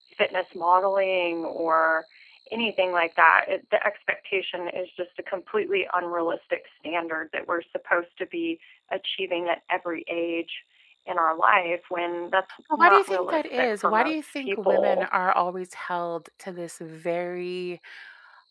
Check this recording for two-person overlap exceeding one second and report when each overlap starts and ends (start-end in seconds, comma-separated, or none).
12.8-15.1